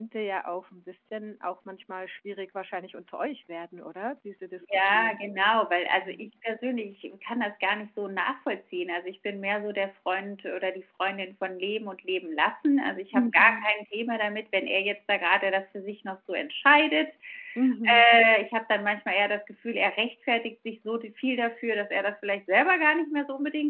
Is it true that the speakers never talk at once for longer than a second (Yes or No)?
Yes